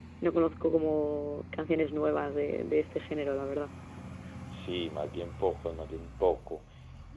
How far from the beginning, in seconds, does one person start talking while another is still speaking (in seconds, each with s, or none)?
none